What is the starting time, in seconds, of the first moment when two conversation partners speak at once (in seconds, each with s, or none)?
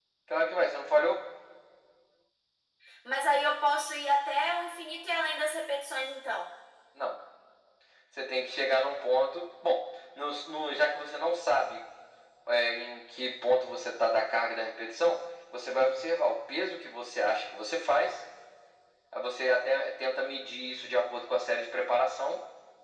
none